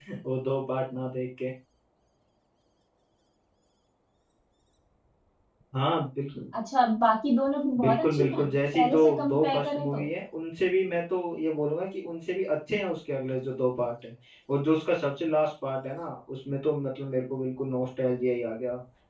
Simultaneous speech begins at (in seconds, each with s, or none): 7.8 s